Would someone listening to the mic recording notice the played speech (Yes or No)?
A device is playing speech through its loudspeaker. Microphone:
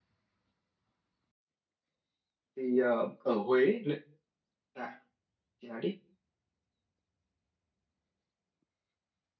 No